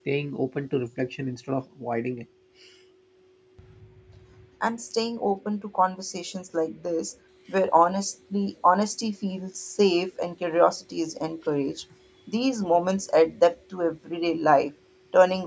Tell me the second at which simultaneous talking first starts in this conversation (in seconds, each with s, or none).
none